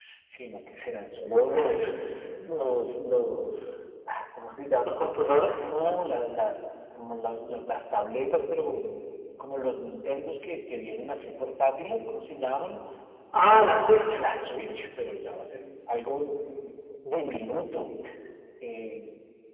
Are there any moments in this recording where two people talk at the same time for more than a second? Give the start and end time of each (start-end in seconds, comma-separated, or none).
none